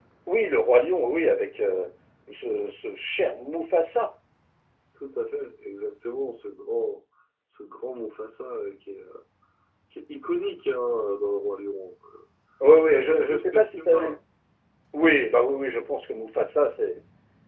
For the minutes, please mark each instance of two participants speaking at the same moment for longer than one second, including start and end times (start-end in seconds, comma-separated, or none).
12.9-14.2